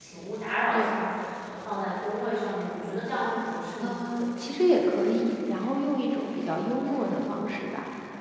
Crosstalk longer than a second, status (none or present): none